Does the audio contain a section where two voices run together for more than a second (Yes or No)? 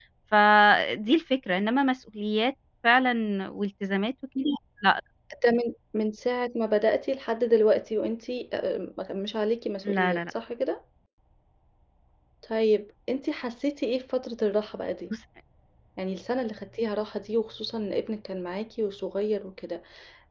No